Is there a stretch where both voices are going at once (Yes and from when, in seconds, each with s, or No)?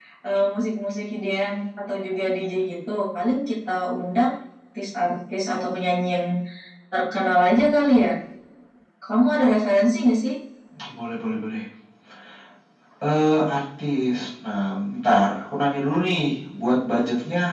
No